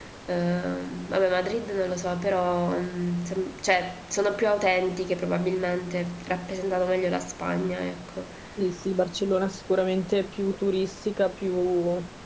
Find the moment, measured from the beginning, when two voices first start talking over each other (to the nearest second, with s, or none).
none